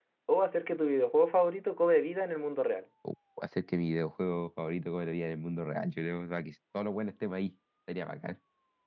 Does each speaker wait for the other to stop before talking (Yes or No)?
Yes